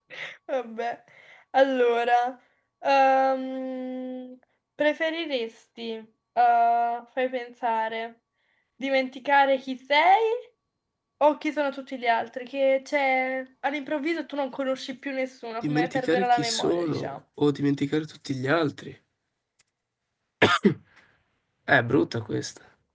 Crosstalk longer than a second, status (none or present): present